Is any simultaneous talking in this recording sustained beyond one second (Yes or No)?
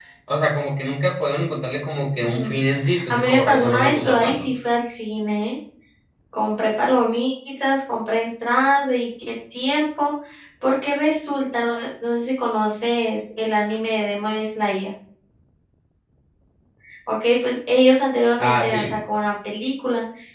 Yes